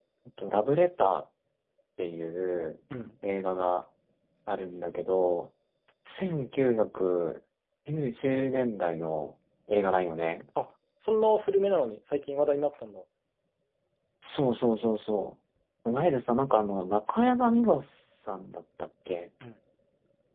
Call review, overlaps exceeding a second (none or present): none